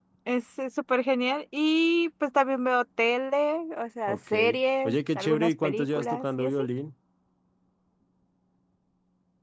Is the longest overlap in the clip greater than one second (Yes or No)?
Yes